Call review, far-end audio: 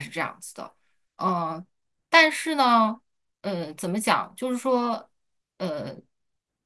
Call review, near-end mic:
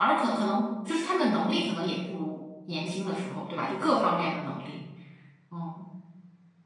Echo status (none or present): none